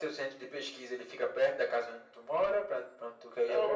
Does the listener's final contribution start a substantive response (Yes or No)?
Yes